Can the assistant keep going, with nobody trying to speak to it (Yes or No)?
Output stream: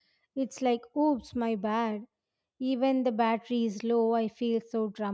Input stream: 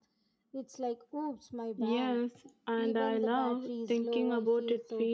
No